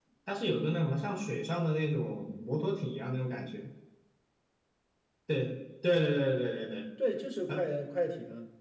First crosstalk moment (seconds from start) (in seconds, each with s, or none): none